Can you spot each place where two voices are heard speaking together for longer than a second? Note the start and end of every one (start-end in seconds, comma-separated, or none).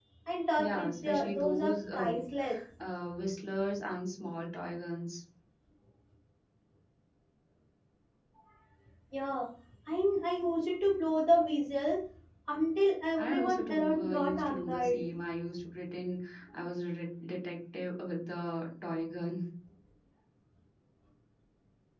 0.6-2.1, 13.2-15.0